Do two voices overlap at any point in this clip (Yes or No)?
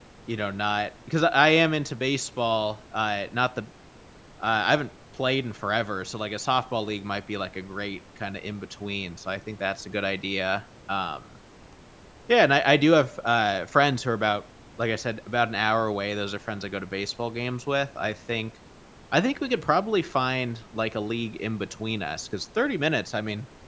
No